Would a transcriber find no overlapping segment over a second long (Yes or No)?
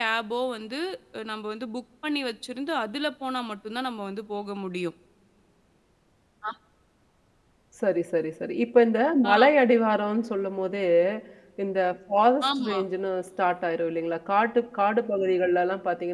Yes